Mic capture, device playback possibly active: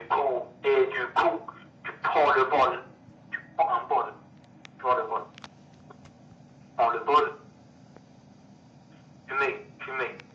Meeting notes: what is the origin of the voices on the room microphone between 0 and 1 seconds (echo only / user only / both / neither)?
echo only